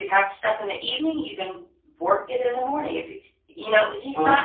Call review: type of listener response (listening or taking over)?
listening